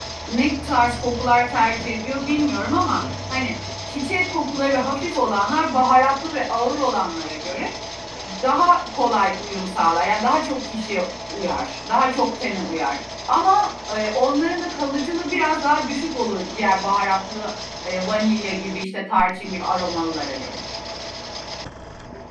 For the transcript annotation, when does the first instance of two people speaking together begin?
none

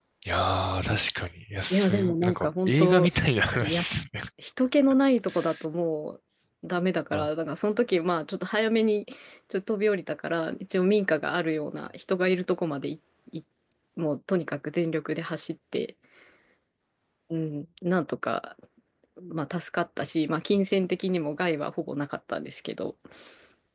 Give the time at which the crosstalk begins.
1.7 s

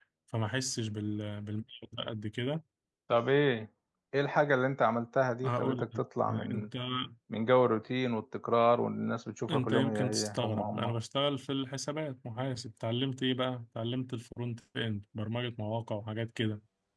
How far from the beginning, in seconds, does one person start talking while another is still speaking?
5.4 s

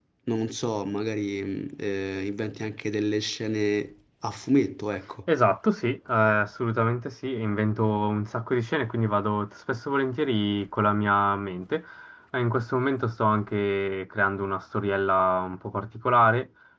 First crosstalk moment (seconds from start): none

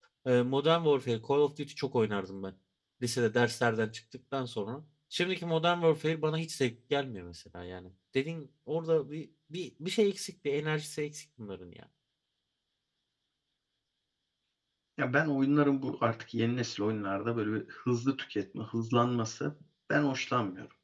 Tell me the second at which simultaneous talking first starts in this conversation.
none

